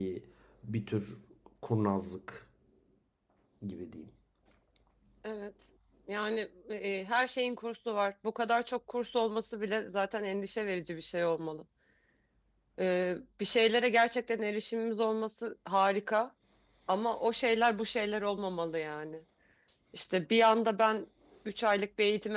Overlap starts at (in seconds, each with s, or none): none